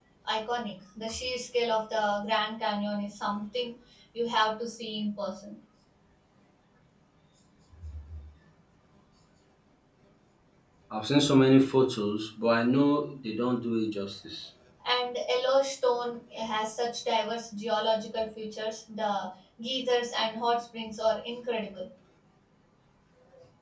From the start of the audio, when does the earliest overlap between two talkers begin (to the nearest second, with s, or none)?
none